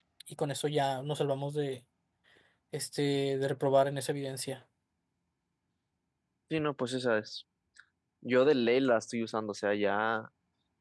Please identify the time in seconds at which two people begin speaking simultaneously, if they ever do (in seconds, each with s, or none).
none